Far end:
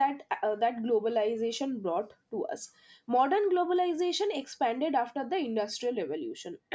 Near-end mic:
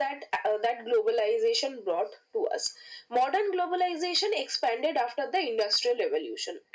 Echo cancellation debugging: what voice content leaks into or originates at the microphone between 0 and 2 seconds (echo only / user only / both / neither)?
echo only